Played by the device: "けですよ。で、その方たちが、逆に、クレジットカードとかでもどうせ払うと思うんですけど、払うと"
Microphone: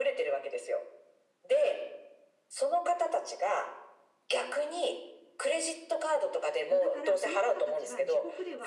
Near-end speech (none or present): present